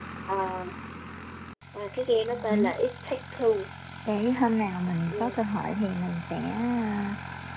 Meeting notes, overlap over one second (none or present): none